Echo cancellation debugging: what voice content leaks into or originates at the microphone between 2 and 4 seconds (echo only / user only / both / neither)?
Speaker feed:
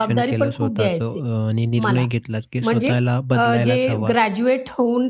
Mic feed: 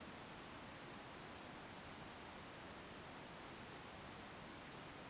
neither